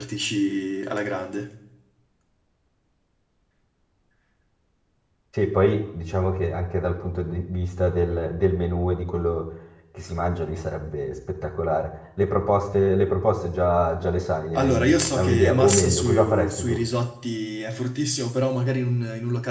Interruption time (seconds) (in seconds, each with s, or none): 14.6 s